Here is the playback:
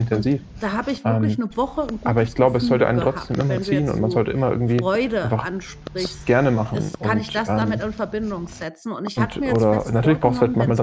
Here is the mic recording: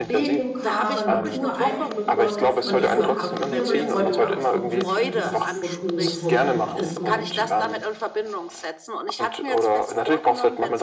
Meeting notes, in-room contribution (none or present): present